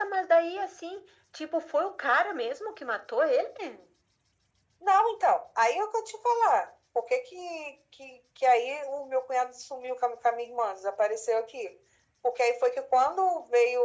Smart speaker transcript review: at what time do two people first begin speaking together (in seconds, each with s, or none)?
none